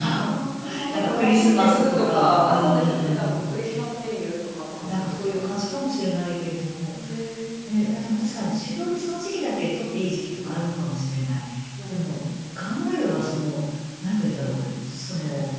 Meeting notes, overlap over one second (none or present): present